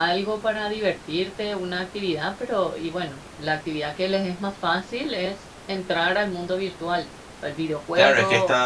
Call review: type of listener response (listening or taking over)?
taking over